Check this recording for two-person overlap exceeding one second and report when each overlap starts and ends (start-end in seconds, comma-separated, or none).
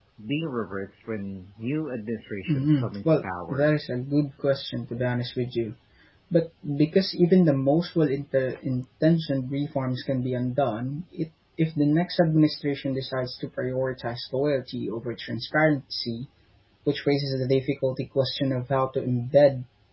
2.5-3.7